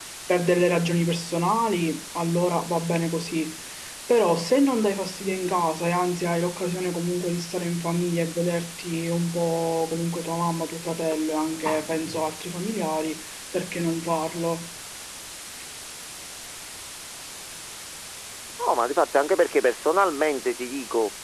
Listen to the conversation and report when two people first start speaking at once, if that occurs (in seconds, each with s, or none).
none